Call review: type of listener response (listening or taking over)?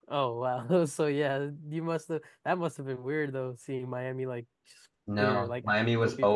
taking over